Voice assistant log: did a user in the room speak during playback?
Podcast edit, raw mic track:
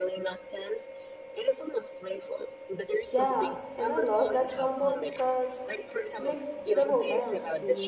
Yes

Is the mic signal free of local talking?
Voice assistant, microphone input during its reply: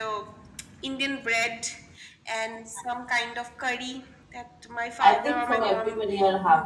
No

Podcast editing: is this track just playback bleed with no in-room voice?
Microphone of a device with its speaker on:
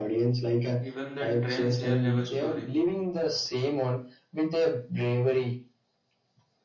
No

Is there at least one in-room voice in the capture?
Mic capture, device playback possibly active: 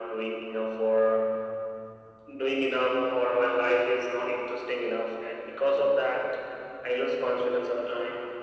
No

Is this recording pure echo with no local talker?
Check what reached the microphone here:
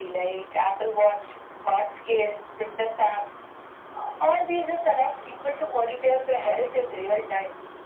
Yes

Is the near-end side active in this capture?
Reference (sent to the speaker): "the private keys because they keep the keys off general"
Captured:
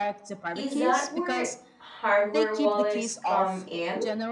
Yes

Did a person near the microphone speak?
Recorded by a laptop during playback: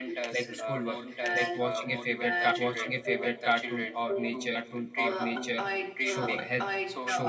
Yes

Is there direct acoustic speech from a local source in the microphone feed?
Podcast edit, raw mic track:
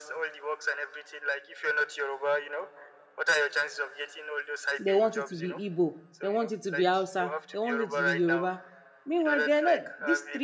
Yes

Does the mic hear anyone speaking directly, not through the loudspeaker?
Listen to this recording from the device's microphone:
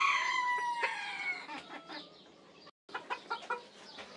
No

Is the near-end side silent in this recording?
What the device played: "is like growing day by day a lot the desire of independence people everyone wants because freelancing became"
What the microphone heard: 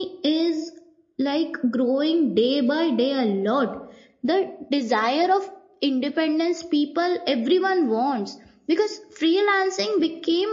Yes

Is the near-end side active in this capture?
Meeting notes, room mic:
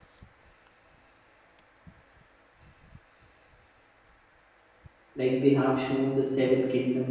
Yes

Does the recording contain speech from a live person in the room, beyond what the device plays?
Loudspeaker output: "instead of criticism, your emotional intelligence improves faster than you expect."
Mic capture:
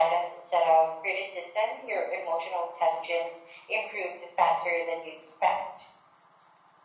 No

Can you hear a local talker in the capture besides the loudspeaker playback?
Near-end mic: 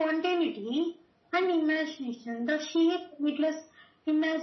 No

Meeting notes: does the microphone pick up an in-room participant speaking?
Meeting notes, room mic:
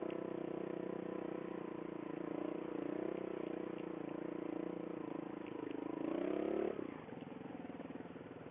No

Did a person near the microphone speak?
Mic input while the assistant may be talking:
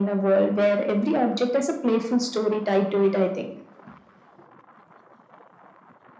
No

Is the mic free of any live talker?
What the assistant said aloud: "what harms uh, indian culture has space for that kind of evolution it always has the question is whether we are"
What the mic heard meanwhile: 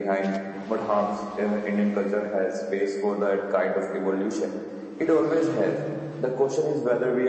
Yes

